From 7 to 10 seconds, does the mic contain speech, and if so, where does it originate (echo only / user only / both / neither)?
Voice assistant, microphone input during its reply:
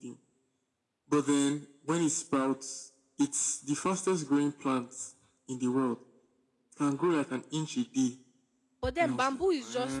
both